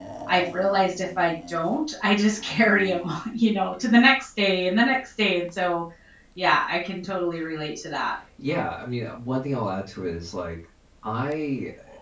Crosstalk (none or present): none